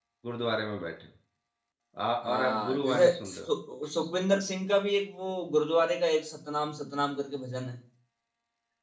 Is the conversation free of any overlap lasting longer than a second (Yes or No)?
No